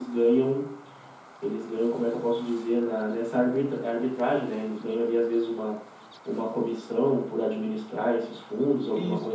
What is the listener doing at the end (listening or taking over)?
taking over